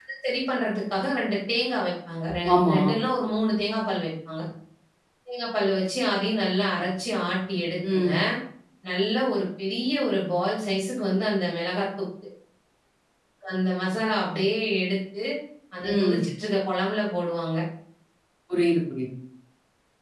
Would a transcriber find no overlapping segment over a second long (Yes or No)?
Yes